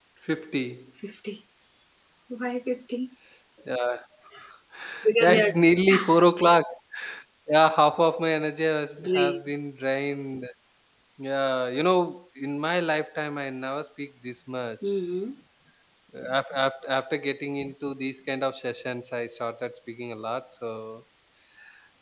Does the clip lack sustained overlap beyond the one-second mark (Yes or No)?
Yes